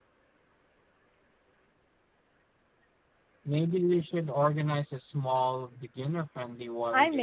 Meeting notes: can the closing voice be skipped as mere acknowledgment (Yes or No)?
No